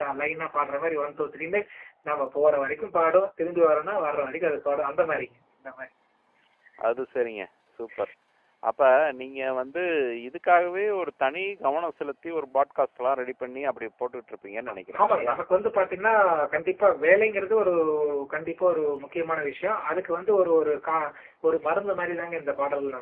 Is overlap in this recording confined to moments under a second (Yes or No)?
Yes